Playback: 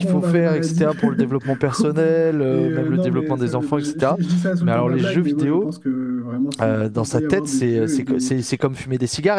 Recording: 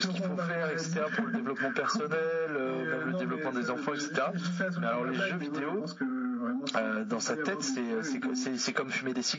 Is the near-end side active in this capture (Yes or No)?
No